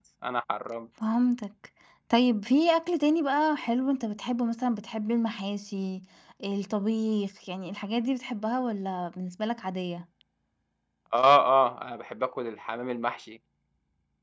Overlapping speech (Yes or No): No